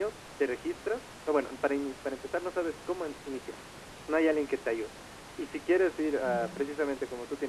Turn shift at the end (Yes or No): No